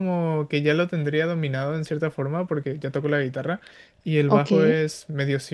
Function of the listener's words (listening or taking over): listening